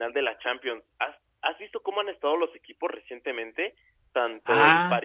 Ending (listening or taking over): listening